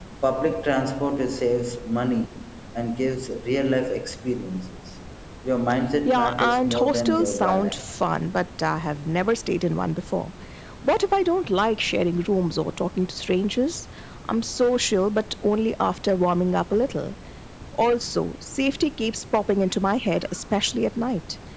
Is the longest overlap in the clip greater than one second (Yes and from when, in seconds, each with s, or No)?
Yes, from 6.0 s